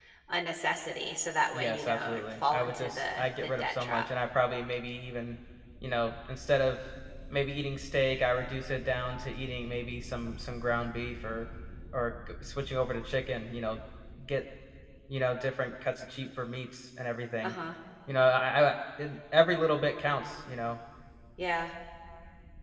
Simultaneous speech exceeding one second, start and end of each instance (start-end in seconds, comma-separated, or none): 1.5-4.0